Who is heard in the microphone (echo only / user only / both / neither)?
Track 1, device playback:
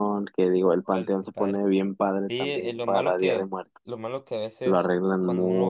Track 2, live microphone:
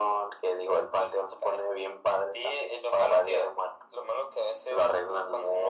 echo only